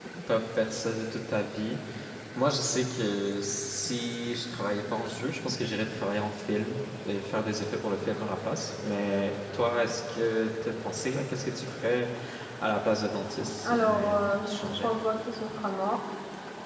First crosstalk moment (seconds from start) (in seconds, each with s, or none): 13.6 s